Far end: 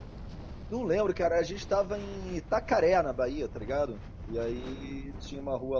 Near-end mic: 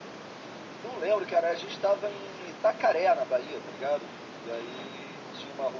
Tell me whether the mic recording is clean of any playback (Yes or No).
No